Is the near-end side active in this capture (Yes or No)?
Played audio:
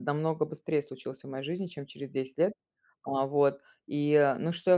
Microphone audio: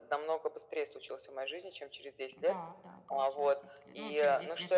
Yes